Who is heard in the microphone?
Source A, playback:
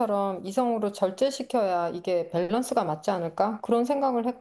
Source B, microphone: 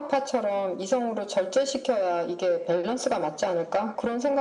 echo only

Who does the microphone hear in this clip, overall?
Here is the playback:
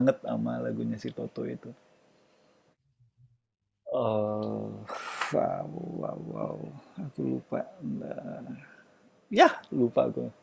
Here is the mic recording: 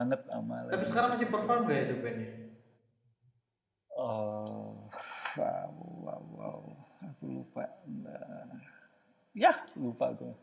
both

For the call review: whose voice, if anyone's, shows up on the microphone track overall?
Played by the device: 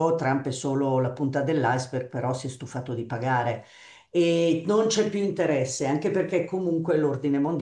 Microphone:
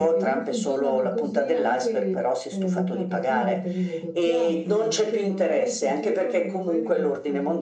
both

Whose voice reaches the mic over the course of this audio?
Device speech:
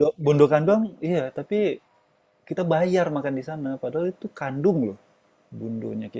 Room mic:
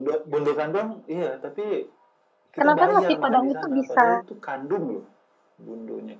both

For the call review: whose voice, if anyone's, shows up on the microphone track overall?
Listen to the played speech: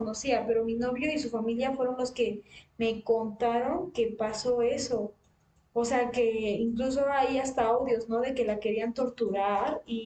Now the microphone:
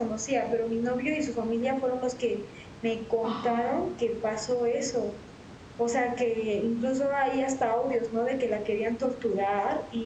both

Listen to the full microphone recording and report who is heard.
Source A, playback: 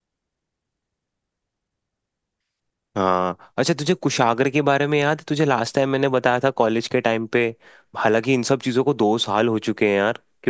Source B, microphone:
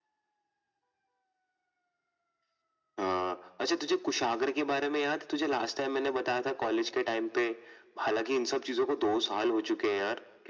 echo only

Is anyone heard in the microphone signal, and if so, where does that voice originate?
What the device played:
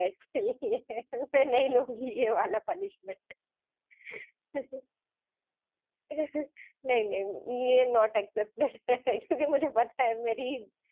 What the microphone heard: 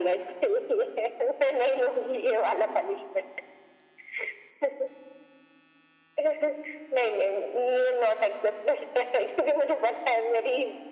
echo only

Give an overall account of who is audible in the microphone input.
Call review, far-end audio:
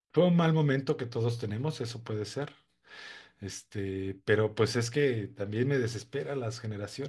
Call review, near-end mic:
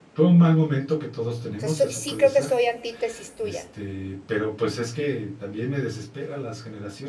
both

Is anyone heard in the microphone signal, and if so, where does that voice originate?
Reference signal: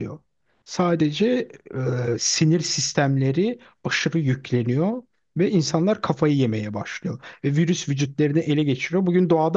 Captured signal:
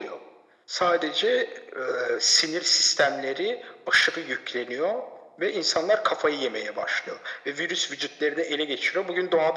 echo only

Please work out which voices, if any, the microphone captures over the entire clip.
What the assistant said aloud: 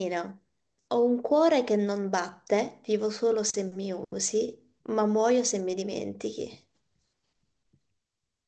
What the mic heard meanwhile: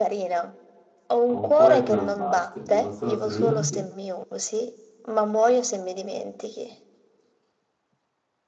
both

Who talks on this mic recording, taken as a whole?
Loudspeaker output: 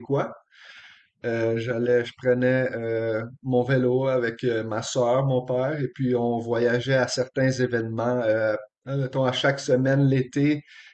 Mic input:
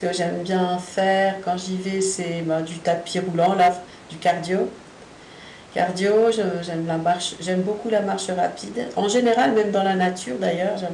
user only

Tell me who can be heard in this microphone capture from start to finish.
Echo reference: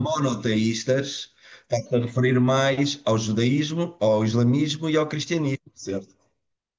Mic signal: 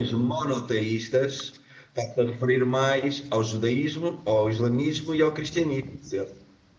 echo only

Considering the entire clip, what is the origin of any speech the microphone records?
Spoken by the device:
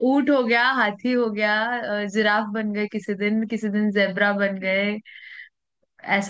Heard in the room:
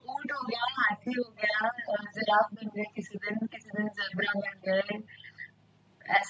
echo only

